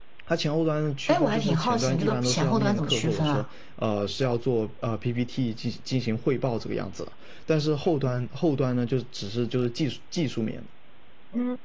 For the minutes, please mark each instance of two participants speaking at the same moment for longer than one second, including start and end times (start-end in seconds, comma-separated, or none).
1.1-3.5